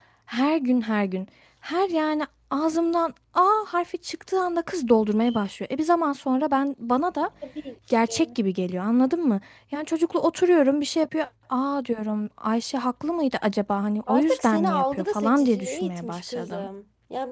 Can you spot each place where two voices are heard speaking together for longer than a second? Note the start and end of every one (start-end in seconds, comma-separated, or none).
14.1-16.7